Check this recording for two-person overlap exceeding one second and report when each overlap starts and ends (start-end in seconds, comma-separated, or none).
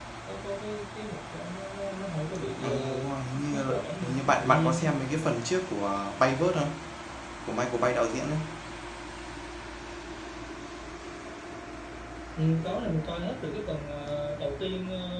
3.5-4.9